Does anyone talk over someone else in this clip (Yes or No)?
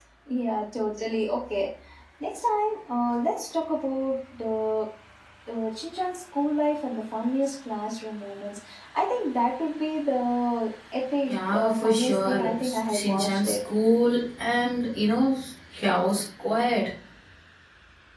Yes